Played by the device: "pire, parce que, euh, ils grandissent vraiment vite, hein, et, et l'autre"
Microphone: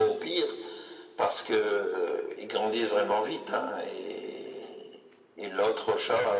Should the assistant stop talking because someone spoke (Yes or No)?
No